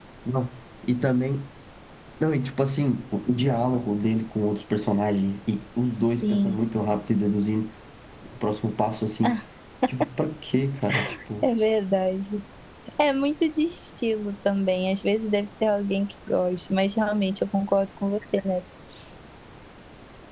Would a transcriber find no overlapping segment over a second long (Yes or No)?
Yes